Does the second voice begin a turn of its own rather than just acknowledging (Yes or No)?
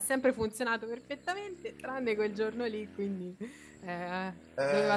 Yes